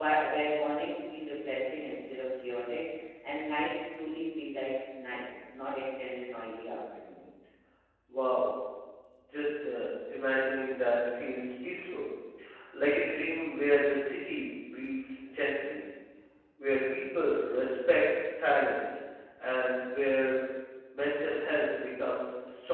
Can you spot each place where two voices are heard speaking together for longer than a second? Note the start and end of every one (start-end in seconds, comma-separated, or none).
none